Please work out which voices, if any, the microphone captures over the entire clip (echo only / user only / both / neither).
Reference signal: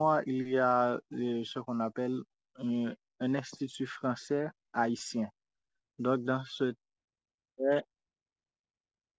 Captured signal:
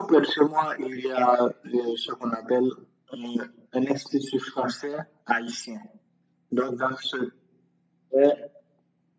echo only